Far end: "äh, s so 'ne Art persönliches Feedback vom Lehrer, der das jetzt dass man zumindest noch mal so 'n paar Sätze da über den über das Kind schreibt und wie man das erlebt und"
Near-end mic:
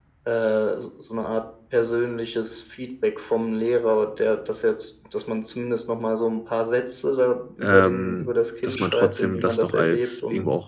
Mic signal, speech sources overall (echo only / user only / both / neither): both